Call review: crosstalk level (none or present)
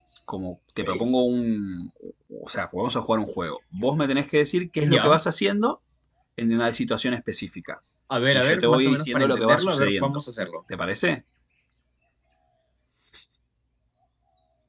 present